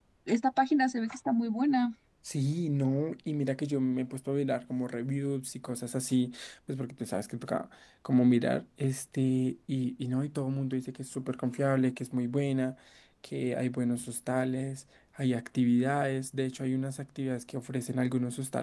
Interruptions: none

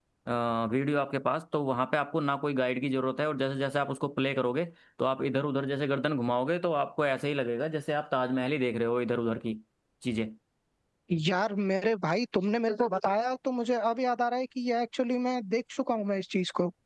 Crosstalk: none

